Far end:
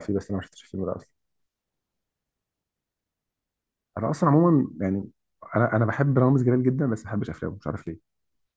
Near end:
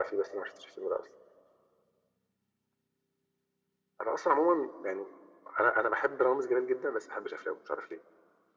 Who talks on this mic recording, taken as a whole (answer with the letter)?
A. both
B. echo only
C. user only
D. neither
B